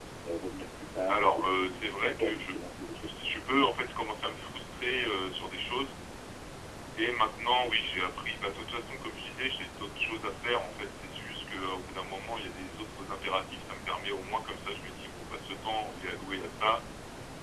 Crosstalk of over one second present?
Yes, from 1.1 s

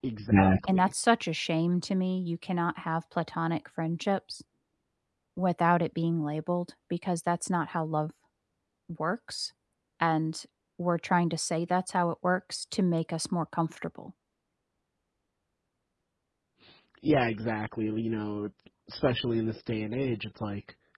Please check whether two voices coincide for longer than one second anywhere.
No

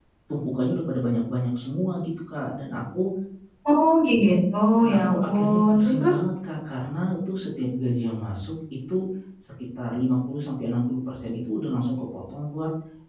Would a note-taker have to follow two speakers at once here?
Yes, from 4.9 s

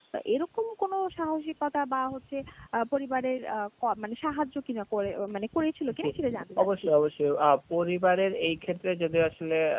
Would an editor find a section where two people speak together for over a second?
No

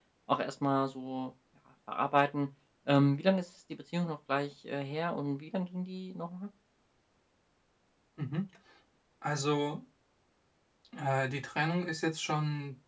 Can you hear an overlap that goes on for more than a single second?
No

